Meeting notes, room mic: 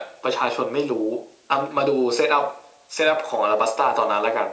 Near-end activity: none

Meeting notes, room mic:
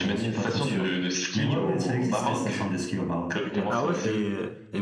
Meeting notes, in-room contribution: present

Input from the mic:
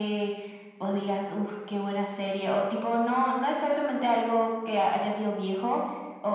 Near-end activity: none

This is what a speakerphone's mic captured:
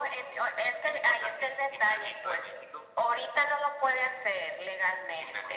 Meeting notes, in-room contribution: none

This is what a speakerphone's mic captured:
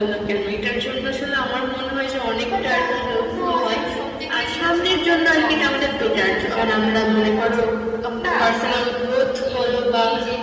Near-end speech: present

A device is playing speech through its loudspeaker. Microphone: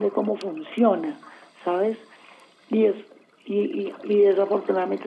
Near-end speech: none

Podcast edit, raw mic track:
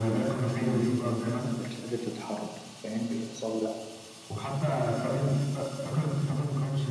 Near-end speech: present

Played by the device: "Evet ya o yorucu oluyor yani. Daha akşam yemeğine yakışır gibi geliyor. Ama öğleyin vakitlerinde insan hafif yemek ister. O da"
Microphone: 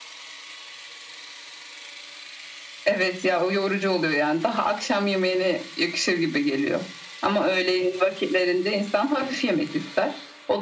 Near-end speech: none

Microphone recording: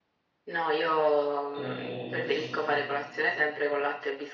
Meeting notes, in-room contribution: present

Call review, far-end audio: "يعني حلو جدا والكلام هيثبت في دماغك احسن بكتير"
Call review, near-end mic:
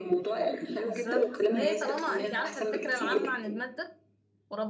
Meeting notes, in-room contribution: present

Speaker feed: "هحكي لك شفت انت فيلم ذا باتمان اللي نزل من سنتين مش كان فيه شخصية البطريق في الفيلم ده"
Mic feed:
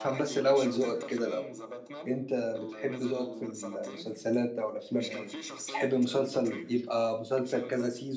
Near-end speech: present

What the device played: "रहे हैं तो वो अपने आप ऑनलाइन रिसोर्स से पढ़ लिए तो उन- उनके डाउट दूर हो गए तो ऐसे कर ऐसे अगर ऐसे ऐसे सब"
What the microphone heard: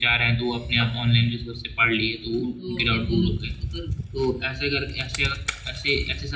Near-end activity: present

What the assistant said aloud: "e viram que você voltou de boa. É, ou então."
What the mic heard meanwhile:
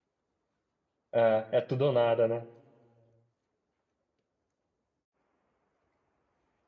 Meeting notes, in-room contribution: present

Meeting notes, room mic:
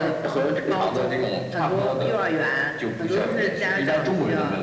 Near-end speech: none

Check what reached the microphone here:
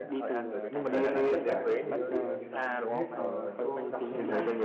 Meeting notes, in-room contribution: present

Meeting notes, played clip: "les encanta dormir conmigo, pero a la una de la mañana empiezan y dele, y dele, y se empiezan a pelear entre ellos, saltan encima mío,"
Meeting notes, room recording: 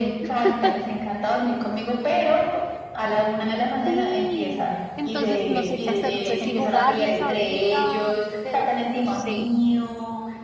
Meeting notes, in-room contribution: present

